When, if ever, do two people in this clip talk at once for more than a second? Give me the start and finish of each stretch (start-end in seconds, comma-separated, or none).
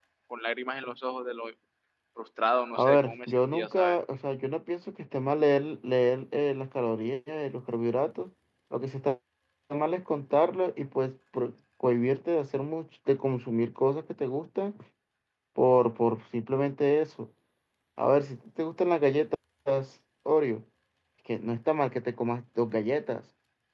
2.8-4.0